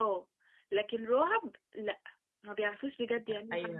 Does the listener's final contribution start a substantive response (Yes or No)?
Yes